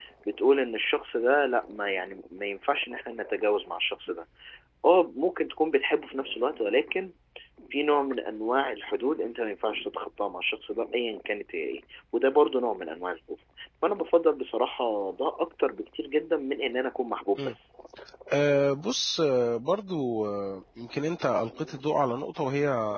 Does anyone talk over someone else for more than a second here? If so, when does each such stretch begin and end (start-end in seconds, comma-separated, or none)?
none